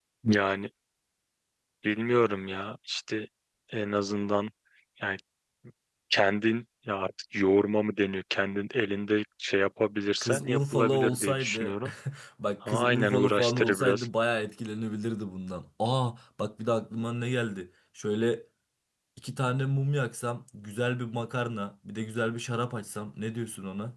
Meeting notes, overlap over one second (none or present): present